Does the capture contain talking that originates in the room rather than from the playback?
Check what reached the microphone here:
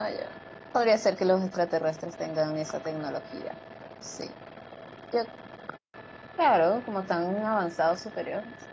Yes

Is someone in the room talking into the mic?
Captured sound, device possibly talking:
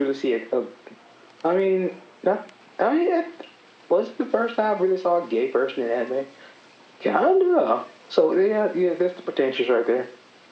No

